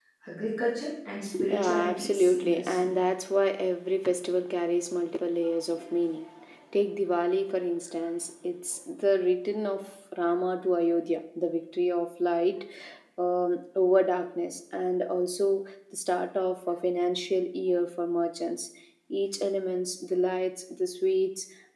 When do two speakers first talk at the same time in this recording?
1.3 s

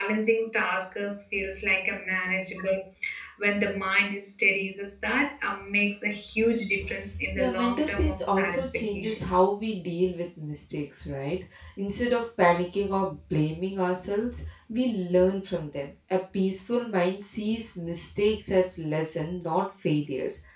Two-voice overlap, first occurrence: 7.3 s

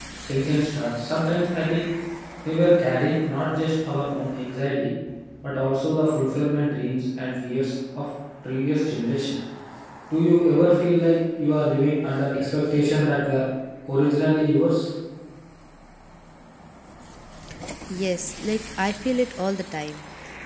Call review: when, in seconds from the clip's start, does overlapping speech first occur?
none

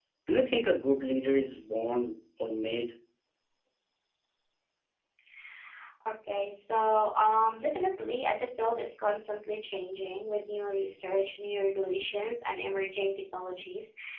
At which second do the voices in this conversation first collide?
none

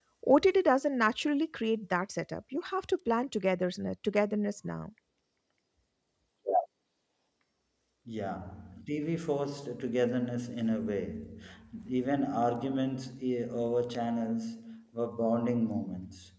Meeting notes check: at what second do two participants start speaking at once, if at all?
none

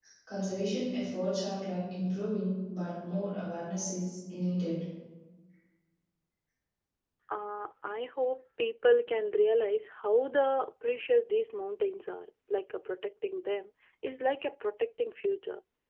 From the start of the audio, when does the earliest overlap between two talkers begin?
none

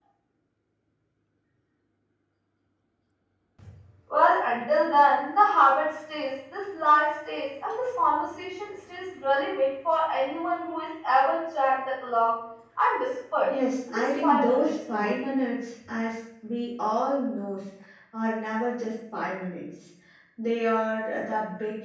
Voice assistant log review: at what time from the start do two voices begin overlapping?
13.9 s

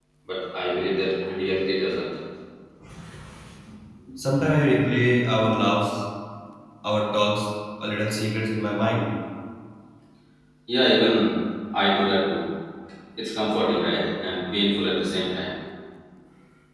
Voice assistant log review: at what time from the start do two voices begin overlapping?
none

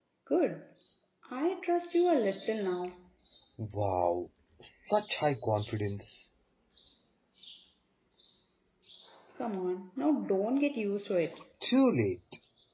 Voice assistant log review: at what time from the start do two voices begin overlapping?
none

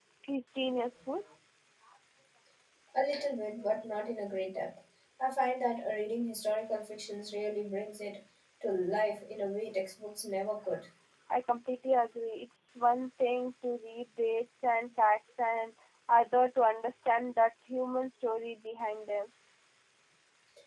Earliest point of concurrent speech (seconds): none

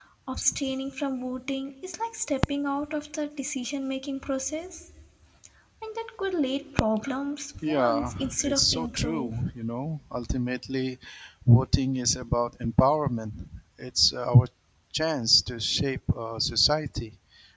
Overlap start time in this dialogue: 7.6 s

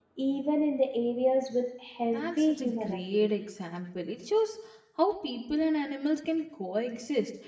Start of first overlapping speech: 2.0 s

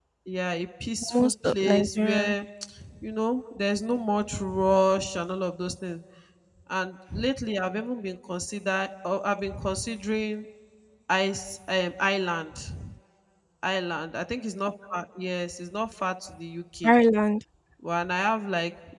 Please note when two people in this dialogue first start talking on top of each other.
1.1 s

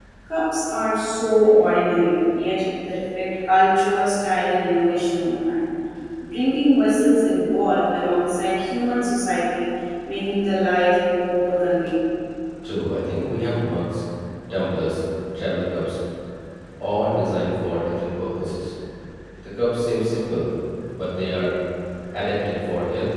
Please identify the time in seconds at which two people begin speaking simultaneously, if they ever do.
none

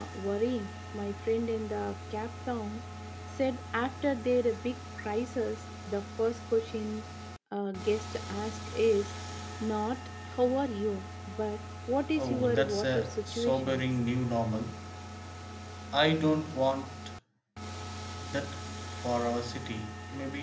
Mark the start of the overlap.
12.2 s

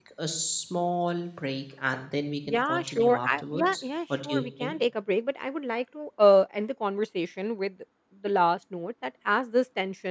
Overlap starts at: 2.5 s

